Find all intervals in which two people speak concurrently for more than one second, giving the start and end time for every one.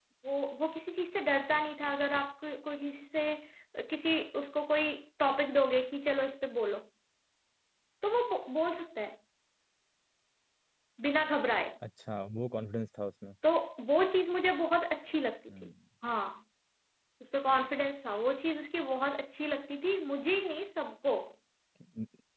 none

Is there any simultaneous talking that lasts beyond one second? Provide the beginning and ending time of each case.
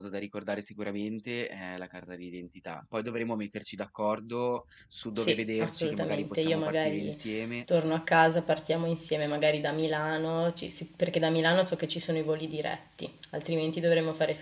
5.2-7.2

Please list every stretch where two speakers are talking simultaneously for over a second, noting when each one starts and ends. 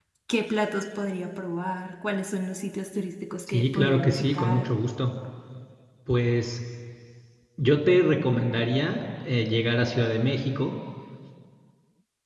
3.5-4.7

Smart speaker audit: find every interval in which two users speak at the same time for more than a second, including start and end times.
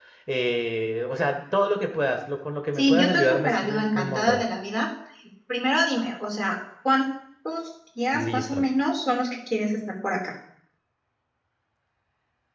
2.8-4.4

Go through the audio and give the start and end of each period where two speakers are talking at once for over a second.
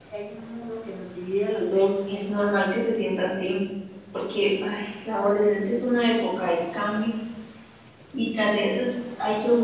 none

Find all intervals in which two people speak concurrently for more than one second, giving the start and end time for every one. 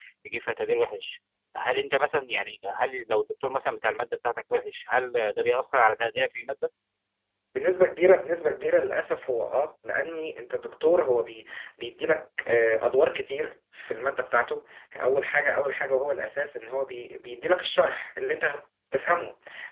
none

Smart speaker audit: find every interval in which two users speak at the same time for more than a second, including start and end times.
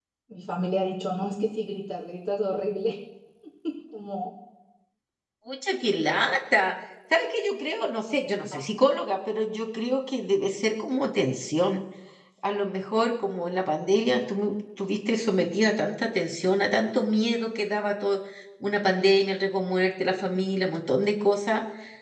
none

